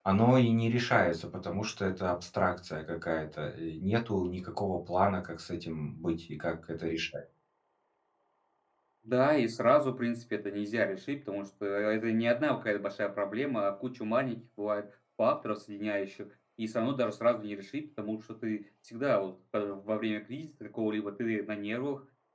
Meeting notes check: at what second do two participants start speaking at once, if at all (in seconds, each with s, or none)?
none